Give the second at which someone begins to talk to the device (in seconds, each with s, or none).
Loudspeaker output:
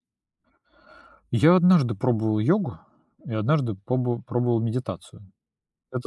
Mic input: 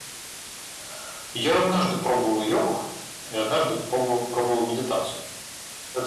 none